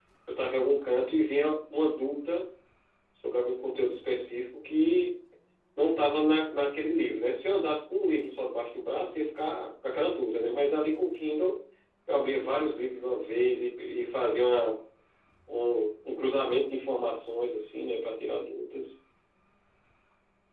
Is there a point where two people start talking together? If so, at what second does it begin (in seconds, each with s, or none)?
none